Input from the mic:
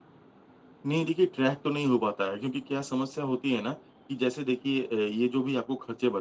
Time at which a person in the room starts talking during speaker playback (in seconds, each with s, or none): 0.8 s